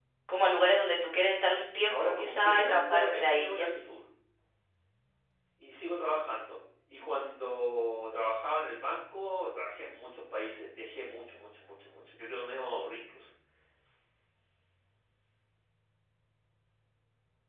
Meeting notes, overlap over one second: present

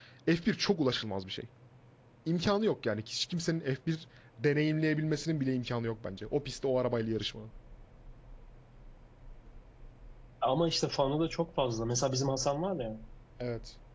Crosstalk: none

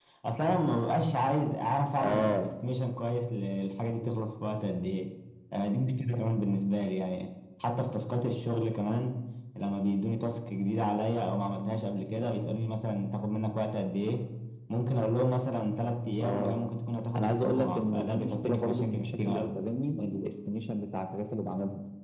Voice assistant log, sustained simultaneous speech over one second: present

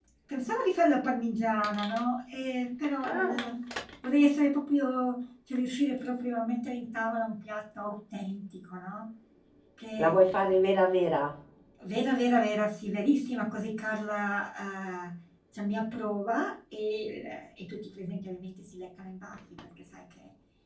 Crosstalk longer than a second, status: none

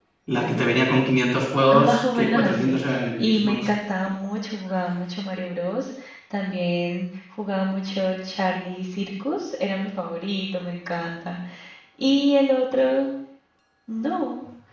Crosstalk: present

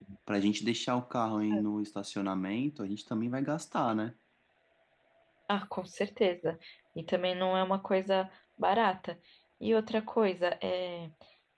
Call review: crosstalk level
none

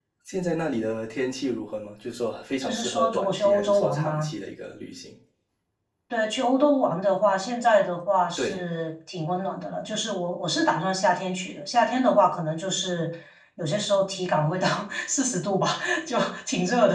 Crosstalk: present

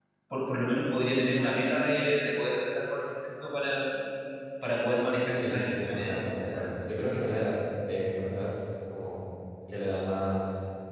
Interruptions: present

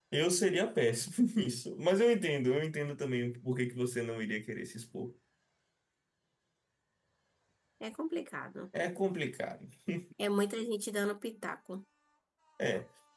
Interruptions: none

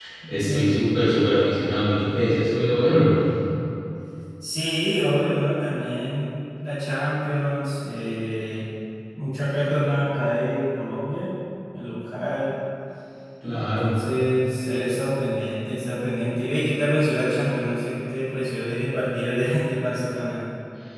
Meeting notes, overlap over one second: none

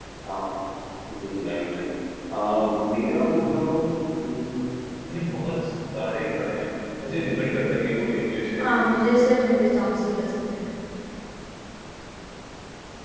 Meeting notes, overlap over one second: none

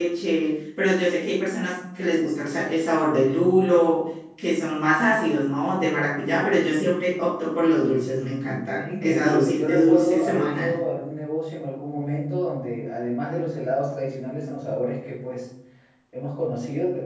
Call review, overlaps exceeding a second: present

